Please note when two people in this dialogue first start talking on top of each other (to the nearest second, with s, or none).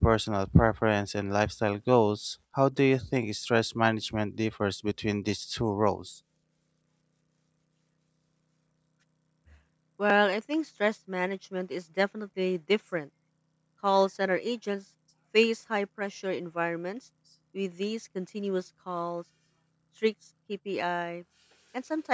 none